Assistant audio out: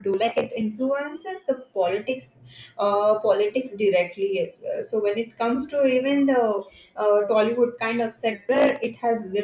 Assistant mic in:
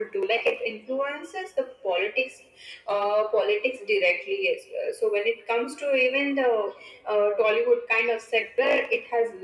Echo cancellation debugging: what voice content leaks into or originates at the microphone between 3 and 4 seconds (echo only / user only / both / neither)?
echo only